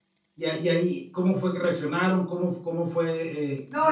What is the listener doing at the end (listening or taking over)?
taking over